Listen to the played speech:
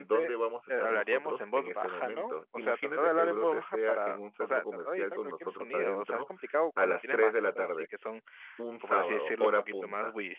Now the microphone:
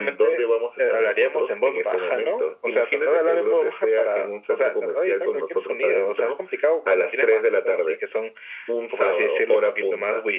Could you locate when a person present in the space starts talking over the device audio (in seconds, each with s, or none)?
none